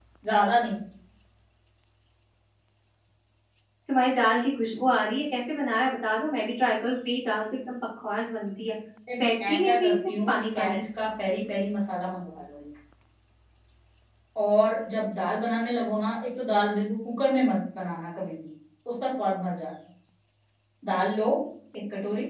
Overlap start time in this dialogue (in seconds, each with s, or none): 9.5 s